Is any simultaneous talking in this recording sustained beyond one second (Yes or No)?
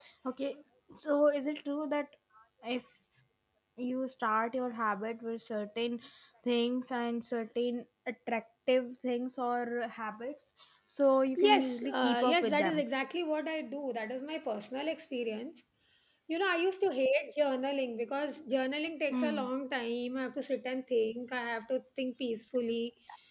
Yes